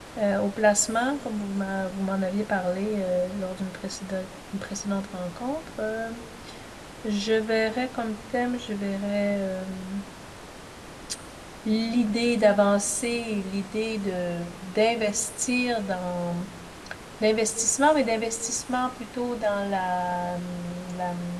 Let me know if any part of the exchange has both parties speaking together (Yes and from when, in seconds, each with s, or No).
No